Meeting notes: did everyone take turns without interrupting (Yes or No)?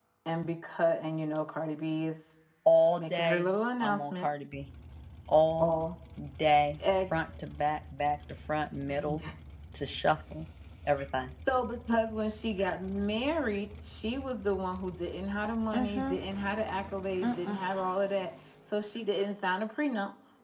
No